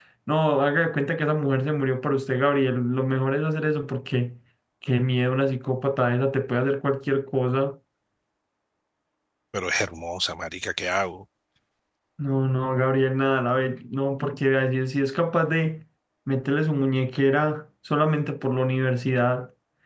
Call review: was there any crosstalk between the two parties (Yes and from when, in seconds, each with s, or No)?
No